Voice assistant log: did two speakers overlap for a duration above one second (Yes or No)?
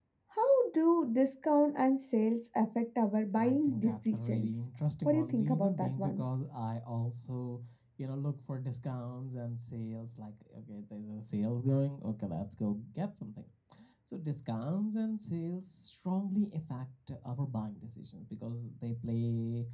Yes